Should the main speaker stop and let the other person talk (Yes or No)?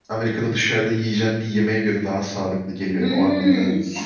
Yes